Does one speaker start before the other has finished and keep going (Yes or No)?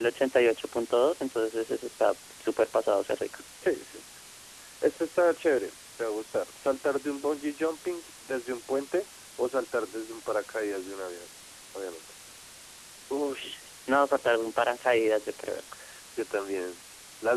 No